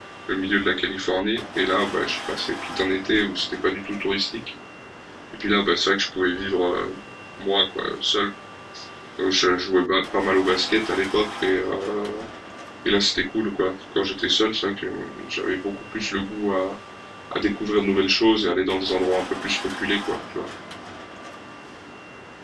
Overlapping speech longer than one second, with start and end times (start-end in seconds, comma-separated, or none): none